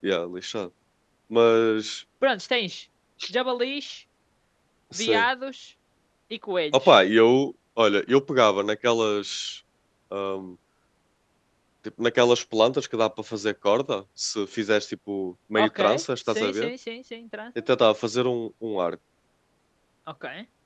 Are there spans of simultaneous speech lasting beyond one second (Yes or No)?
No